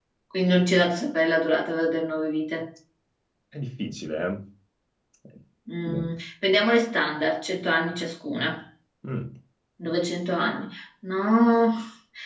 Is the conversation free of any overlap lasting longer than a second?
Yes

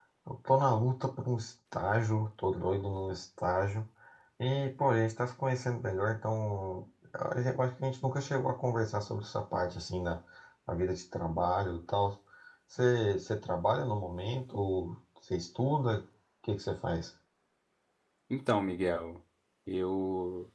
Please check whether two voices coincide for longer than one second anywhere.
No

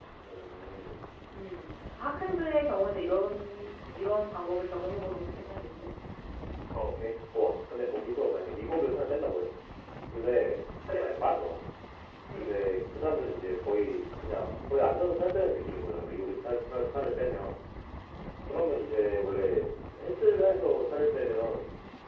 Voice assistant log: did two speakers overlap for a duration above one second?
No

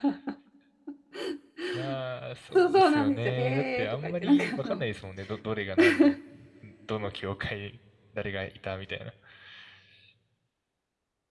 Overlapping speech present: Yes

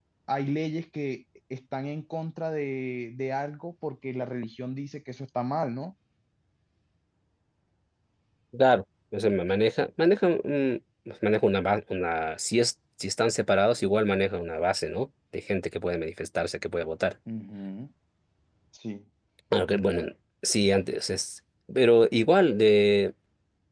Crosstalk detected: No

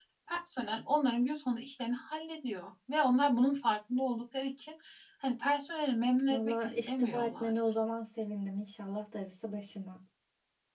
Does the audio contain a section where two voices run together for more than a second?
Yes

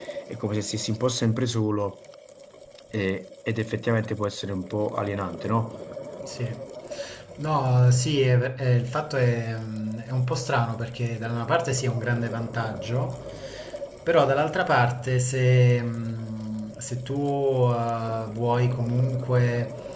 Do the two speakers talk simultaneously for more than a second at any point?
No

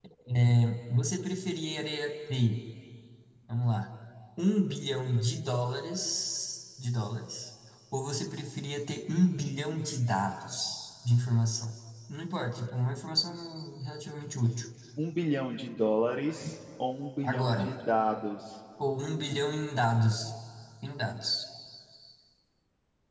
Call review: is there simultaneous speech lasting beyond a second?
No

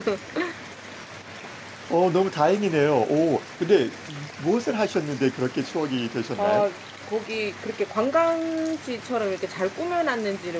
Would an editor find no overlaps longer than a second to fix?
Yes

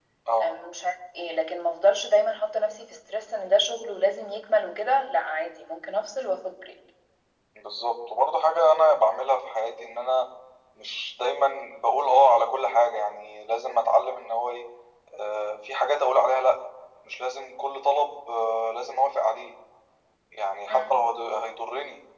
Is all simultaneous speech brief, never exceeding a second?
Yes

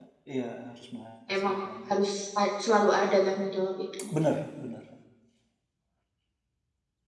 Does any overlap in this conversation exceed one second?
No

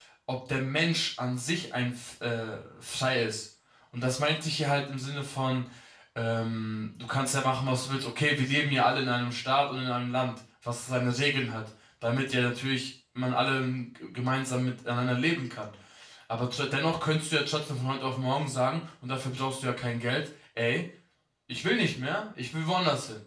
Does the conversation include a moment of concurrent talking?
No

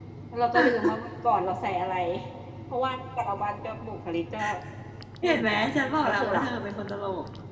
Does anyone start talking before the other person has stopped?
Yes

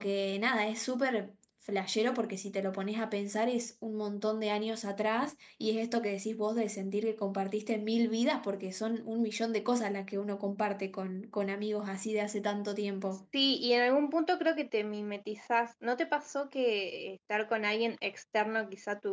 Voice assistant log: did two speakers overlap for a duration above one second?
No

